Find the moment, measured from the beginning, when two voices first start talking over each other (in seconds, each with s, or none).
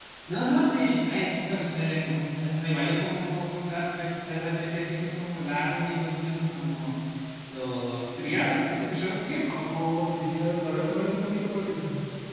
none